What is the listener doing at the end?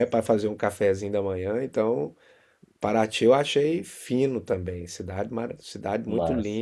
listening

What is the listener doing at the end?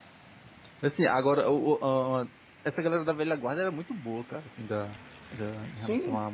listening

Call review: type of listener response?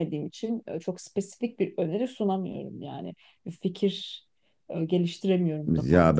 taking over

